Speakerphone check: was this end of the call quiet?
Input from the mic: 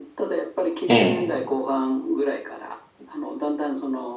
No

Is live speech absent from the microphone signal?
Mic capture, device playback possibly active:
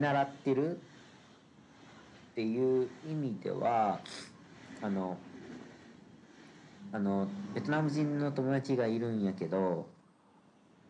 Yes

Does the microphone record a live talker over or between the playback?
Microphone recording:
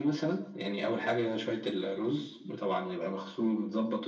No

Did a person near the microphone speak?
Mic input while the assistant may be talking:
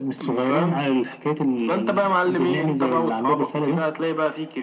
No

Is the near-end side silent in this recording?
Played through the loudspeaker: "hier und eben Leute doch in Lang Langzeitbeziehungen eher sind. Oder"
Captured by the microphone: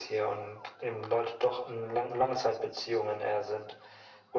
Yes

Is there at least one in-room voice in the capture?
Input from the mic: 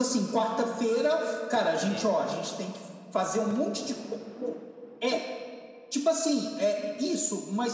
Yes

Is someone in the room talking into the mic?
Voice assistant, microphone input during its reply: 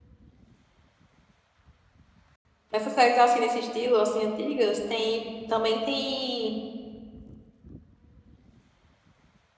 Yes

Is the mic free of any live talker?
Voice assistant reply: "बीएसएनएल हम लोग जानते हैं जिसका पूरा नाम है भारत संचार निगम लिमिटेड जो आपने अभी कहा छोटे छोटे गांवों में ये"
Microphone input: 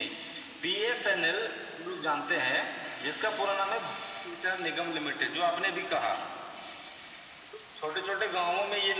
Yes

